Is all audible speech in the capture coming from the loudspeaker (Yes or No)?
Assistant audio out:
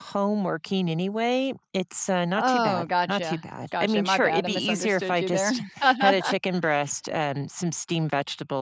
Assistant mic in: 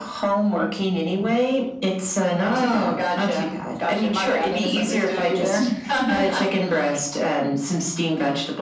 Yes